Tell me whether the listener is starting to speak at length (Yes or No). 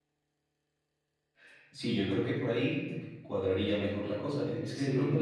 No